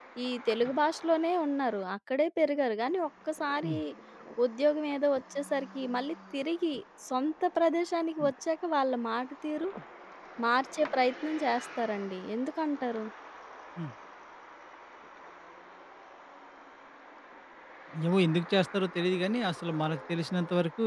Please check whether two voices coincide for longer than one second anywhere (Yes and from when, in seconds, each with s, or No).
No